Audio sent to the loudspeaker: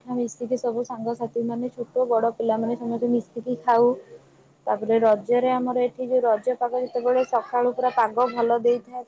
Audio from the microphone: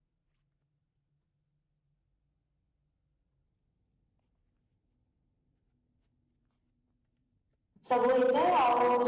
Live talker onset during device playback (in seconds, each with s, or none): 7.9 s